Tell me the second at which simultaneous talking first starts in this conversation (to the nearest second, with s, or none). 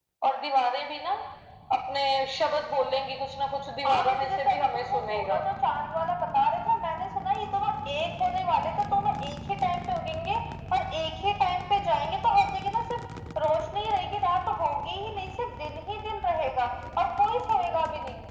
4 s